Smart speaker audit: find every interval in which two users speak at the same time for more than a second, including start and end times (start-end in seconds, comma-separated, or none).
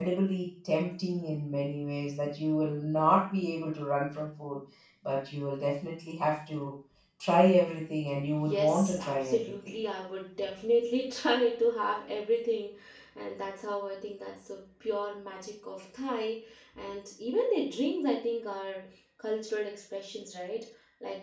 8.5-9.8